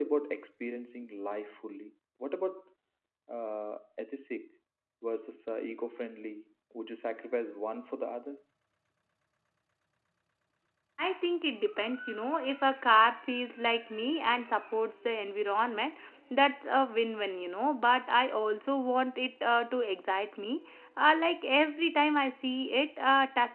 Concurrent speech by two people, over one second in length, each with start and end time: none

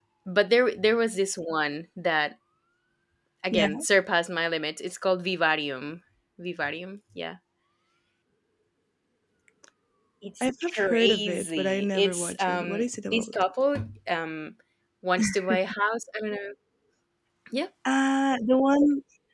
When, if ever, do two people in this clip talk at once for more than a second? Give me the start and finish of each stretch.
10.4-13.3

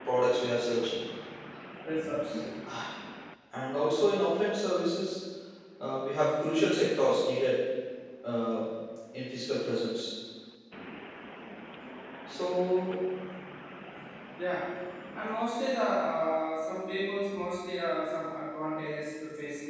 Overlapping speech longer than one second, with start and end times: none

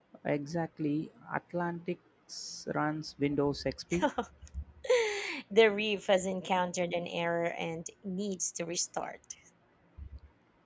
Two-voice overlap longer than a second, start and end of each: none

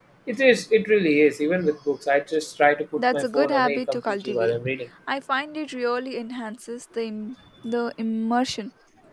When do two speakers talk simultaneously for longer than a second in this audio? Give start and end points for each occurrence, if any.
3.0-4.5

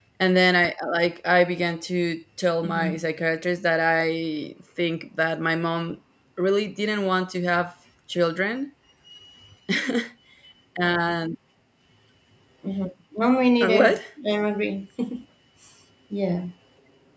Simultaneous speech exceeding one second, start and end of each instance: none

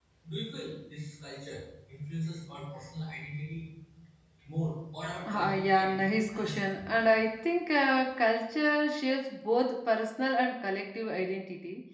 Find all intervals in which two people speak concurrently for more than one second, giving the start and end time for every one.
5.3-6.9

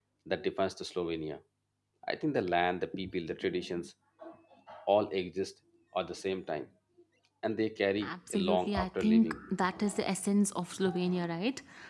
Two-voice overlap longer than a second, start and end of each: 8.0-9.4

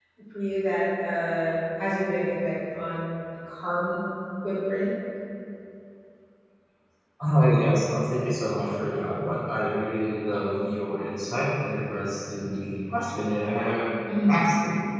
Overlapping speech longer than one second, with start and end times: none

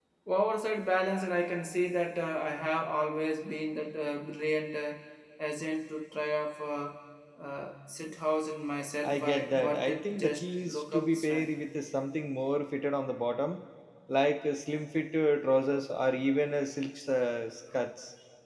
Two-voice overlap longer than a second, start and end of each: 9.0-11.5

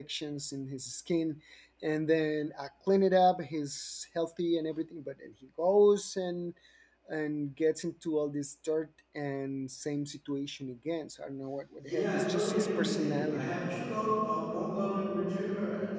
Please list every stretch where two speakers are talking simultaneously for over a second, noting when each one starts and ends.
11.8-13.5

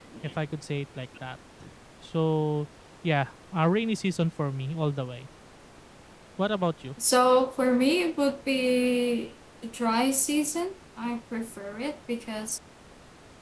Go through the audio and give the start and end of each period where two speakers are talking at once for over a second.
none

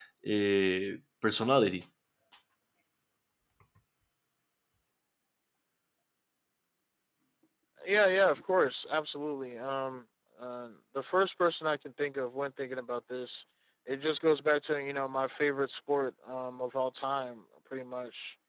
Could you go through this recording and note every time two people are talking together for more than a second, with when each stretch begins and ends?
none

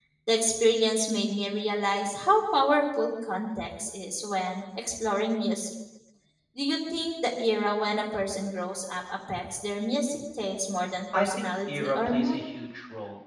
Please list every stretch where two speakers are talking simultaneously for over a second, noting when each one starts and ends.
11.1-12.4

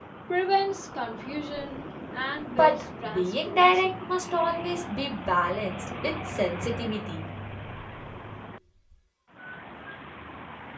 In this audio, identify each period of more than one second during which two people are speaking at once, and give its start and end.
2.5-4.0

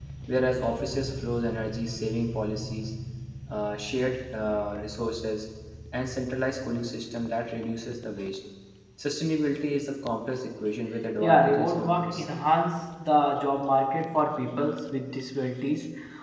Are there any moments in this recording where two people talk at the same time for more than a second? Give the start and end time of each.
11.2-12.4

